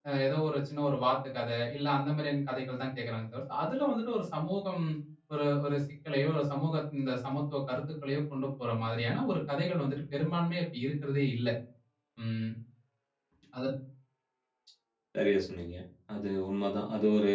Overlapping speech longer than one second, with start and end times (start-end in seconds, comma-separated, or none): none